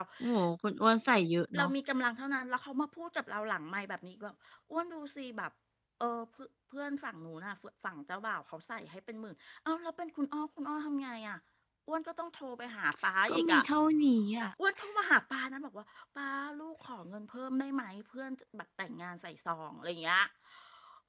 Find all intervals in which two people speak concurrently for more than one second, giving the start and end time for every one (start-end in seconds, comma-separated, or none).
none